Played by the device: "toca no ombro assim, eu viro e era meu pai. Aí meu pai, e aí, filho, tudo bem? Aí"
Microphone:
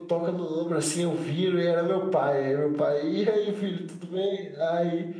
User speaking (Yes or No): No